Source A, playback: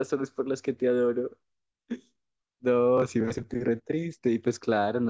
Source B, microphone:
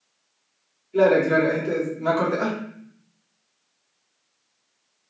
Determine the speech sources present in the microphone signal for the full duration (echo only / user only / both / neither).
user only